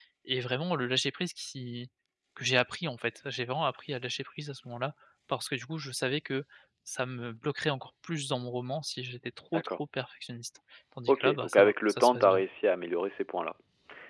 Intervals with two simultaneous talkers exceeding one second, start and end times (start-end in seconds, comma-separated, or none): 11.1-12.4